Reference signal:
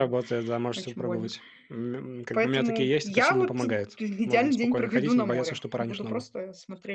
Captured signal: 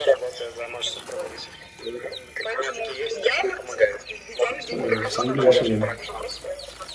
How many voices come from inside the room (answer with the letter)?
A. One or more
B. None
A